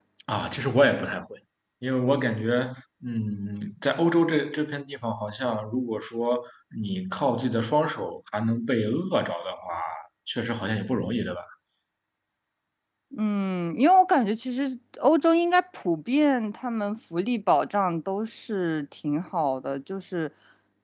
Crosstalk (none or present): none